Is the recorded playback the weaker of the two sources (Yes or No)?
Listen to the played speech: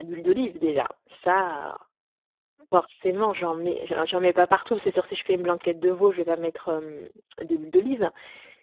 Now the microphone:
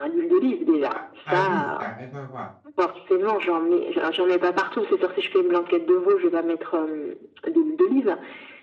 No